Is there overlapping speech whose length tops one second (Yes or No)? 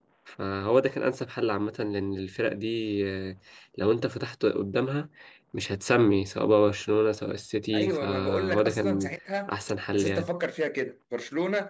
Yes